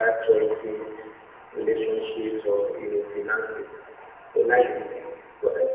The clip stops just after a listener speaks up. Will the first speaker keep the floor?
Yes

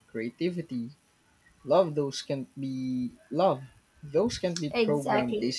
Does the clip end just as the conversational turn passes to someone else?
Yes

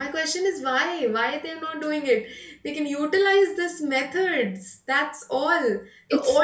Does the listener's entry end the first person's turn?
No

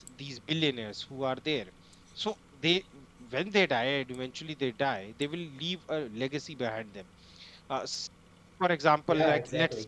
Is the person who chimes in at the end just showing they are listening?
Yes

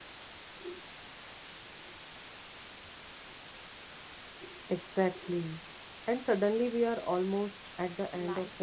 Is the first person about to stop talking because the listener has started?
Yes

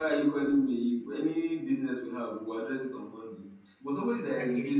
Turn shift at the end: No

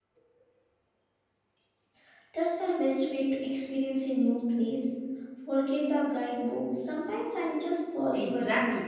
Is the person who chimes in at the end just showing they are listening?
No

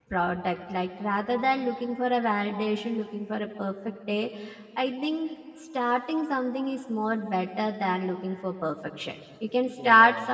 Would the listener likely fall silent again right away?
Yes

